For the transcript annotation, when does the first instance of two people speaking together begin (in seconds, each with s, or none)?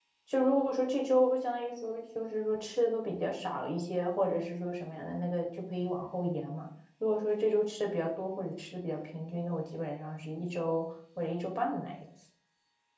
none